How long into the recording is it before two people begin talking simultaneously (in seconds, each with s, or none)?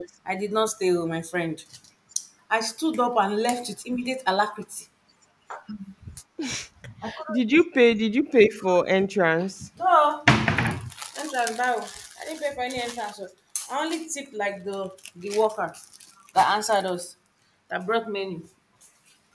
none